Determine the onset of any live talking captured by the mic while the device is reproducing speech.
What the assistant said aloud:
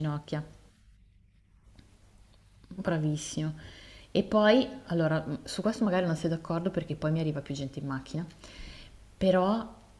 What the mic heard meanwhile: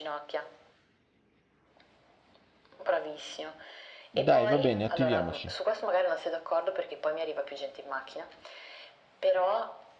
4.1 s

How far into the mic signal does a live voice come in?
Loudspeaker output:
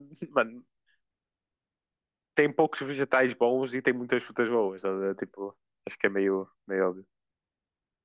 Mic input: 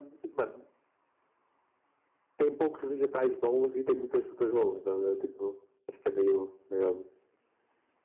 none

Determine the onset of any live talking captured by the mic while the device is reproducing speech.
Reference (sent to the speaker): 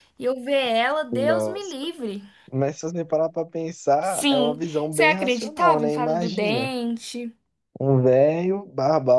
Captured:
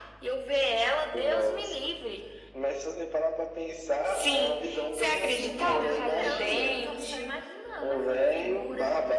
5.1 s

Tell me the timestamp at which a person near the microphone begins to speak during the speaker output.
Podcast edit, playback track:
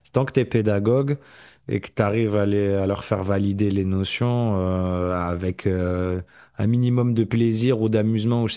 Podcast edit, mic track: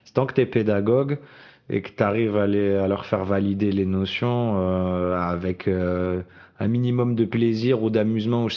none

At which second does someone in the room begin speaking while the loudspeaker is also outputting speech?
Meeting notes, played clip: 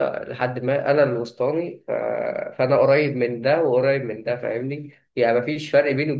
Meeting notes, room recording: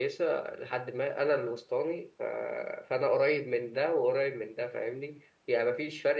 none

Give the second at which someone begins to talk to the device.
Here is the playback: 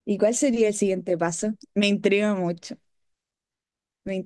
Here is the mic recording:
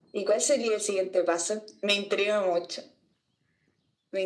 none

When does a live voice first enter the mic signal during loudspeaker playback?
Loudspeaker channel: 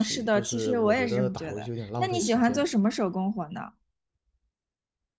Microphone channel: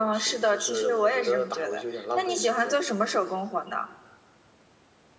none

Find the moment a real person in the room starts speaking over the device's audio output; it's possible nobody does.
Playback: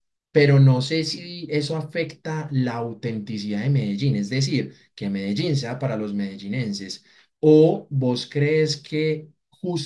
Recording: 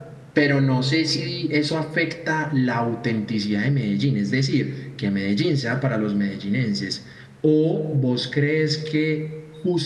none

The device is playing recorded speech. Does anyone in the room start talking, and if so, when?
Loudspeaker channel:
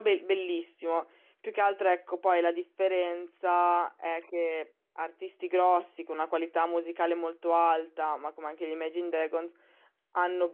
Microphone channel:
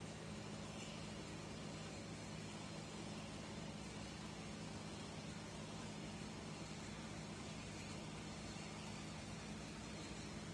none

